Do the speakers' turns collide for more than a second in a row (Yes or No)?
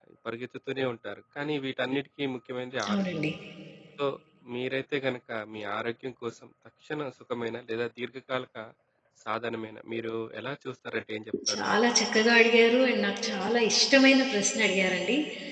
No